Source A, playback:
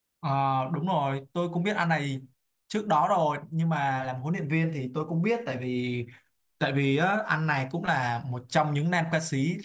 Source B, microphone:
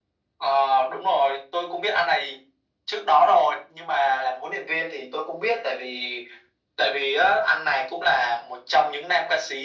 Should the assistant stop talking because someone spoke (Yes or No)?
No